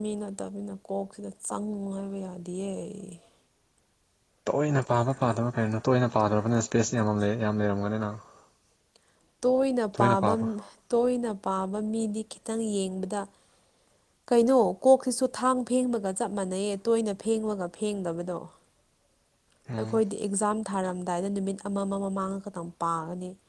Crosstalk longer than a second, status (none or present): none